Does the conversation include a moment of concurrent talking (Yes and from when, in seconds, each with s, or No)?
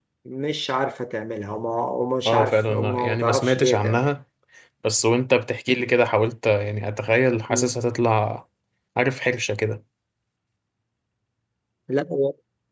Yes, from 2.2 s